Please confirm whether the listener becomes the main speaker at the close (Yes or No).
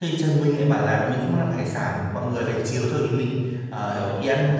No